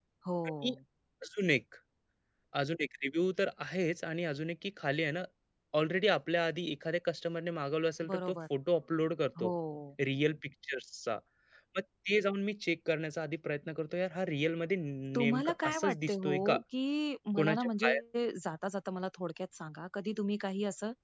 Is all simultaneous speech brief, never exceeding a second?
No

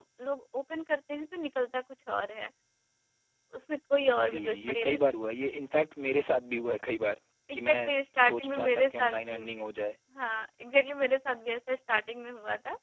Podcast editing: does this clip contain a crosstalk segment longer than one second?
Yes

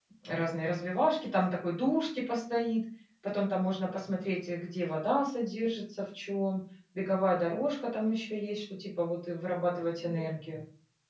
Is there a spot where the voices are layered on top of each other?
No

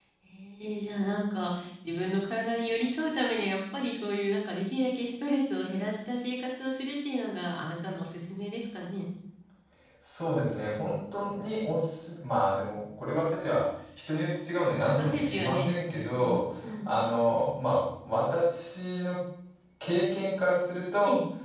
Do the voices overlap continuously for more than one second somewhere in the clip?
Yes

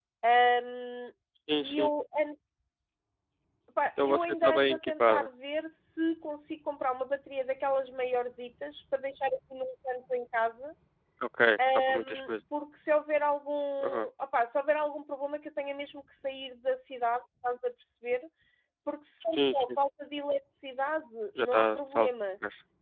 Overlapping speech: Yes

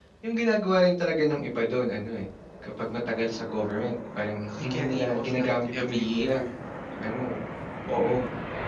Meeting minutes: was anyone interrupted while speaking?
Yes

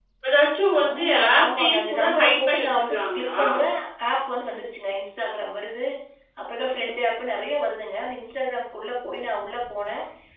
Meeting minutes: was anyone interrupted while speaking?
Yes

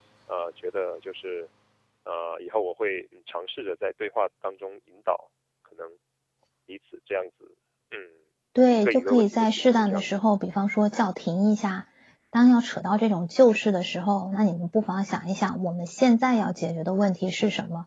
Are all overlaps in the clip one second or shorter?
No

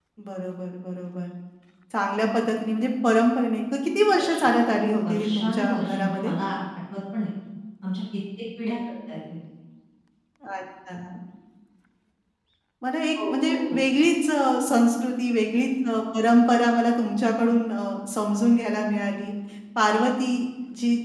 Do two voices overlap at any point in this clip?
Yes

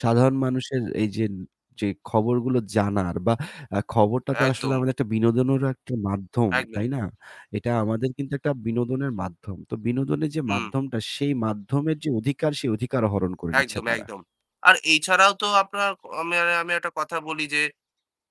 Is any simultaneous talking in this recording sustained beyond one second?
No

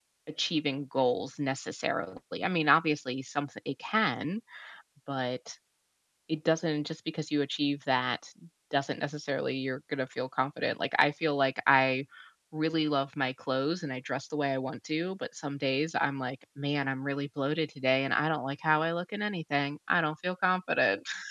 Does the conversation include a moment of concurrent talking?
No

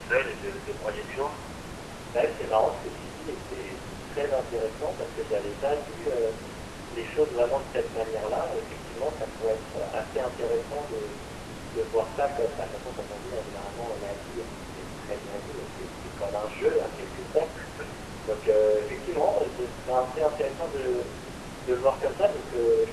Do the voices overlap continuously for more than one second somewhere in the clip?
No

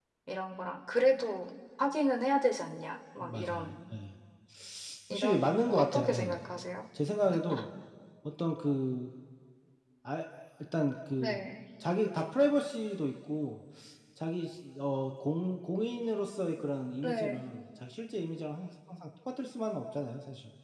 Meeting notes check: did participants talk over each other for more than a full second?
Yes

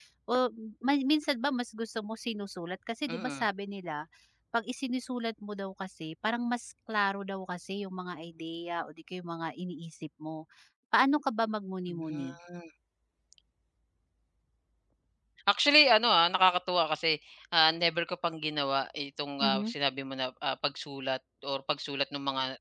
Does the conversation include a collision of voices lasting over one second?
No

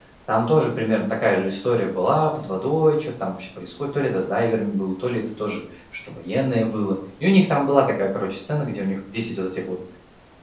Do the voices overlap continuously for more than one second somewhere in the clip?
No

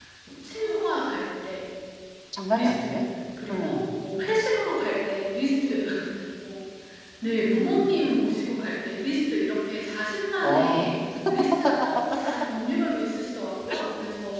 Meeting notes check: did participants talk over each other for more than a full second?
No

